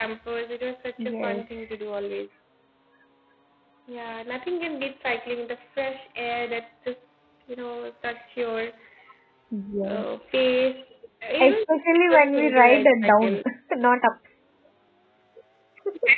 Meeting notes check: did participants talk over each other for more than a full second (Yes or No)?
Yes